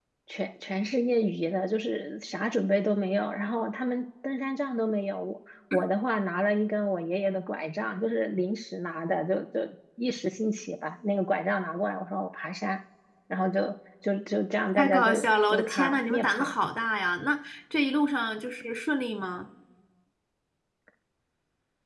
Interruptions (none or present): present